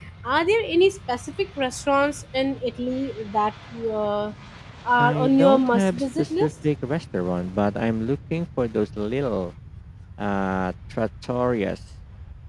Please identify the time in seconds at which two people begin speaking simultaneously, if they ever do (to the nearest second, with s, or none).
5 s